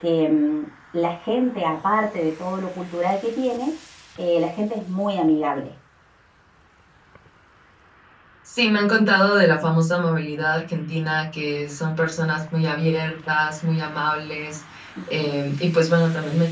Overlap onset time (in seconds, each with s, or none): none